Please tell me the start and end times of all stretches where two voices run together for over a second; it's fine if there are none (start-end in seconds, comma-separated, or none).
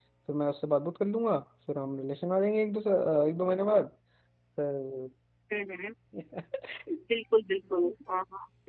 none